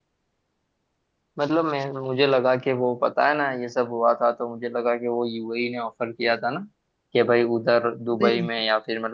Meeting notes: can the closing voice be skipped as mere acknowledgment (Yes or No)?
Yes